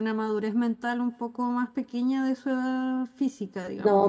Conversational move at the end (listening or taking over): taking over